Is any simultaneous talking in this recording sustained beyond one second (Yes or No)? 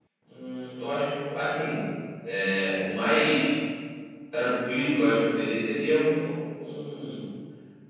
No